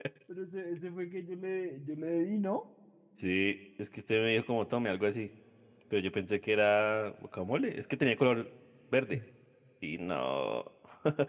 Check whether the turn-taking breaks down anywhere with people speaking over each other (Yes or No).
No